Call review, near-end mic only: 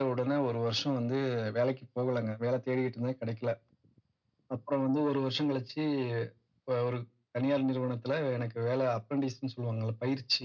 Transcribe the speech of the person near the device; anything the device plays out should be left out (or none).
none